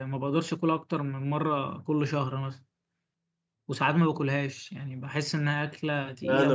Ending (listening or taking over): taking over